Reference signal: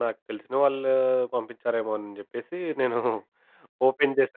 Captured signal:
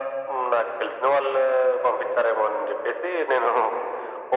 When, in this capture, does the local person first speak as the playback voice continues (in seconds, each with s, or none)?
none